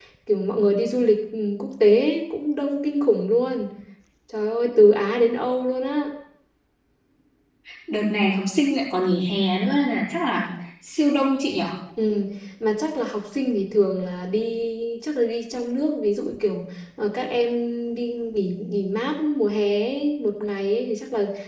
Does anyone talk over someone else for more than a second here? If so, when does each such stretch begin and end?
none

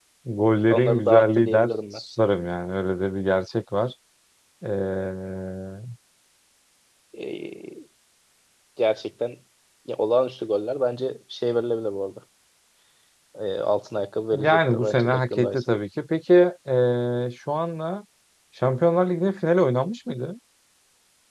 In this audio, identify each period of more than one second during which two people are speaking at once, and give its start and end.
0.7-2.0, 14.3-15.6

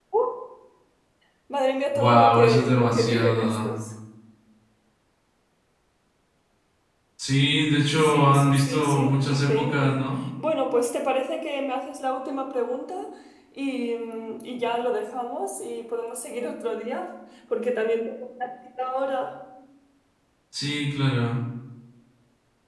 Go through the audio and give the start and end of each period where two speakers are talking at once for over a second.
1.9-3.7, 8.0-10.0

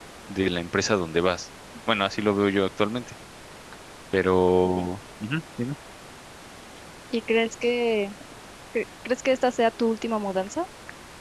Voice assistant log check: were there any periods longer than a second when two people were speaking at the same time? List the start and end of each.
none

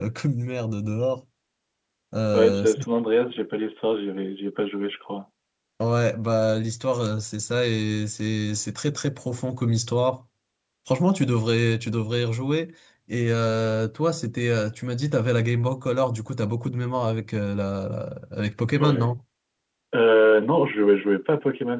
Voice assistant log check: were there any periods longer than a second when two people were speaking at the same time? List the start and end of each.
none

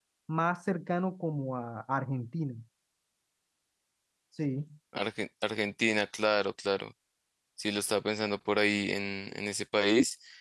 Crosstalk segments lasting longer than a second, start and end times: none

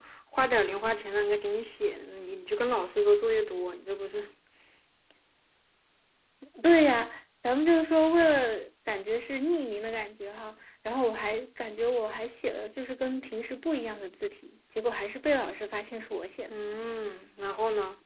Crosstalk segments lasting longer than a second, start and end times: none

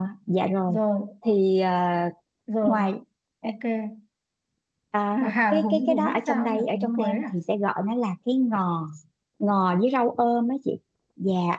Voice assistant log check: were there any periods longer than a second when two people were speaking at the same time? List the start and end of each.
5.2-7.3

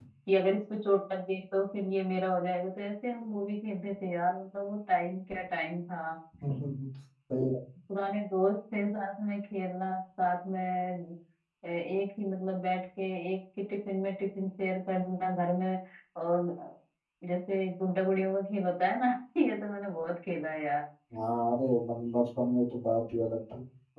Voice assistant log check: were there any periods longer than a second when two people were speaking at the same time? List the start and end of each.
none

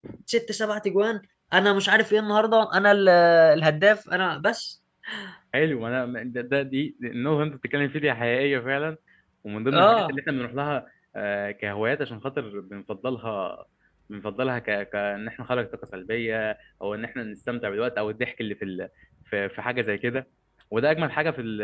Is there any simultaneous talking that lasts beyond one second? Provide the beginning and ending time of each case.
none

